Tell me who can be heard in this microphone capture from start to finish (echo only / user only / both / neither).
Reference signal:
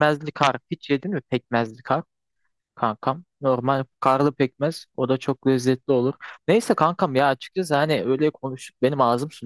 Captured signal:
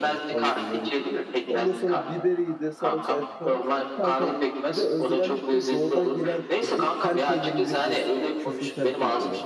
both